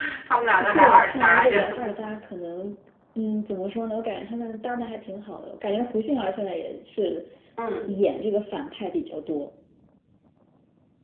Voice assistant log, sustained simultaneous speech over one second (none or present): present